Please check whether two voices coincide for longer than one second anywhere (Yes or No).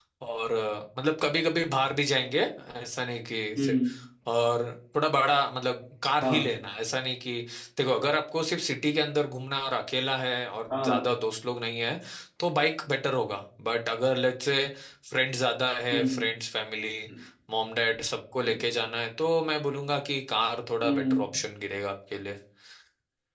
No